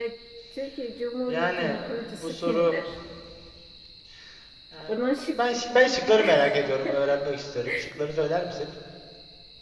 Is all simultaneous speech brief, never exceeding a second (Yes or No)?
No